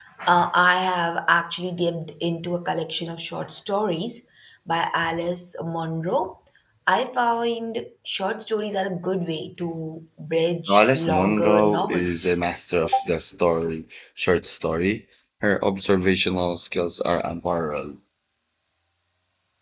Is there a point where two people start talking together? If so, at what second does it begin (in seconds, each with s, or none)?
10.7 s